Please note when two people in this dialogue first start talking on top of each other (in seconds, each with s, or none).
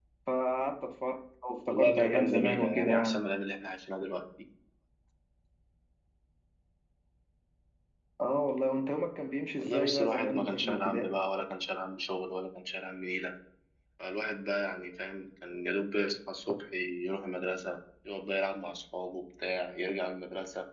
1.7 s